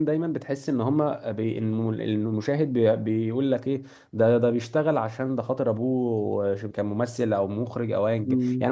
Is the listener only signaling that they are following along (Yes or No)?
No